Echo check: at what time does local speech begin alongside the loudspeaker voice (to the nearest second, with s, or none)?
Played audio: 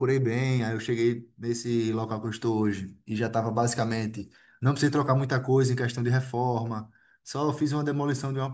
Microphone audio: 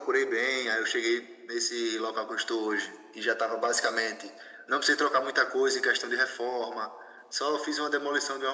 none